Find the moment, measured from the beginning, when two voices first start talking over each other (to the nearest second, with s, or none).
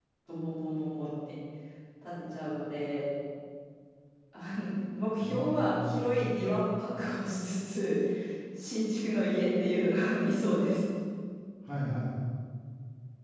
5 s